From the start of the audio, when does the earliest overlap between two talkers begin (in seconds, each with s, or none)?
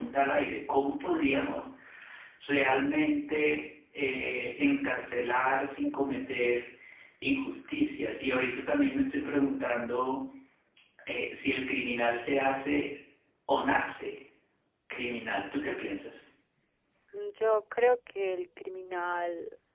none